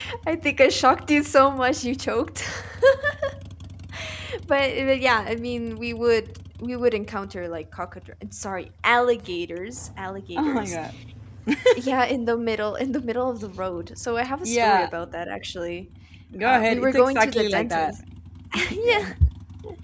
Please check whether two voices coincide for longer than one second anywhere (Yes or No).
Yes